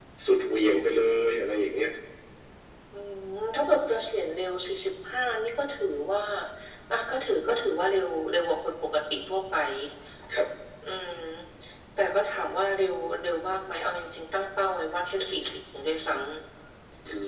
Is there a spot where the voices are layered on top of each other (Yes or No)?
No